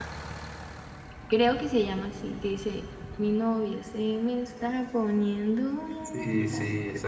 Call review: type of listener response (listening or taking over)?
taking over